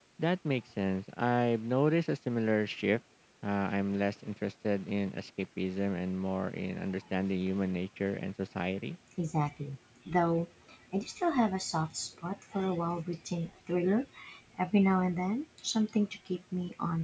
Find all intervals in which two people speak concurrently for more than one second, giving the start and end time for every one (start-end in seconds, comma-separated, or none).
none